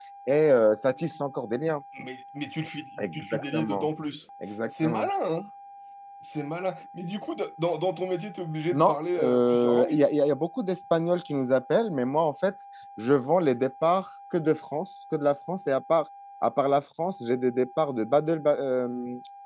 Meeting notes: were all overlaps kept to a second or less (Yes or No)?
No